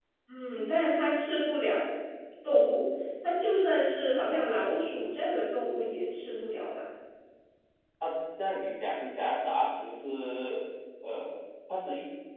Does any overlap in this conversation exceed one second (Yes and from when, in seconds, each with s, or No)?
No